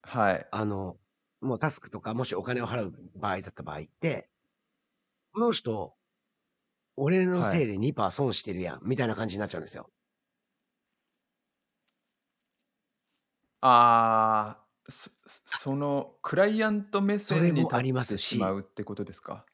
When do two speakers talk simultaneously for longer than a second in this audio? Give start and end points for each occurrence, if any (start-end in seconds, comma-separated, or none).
17.1-18.5